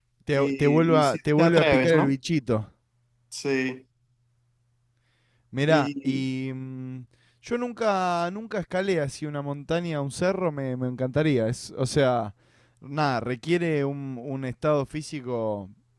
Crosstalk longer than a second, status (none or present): present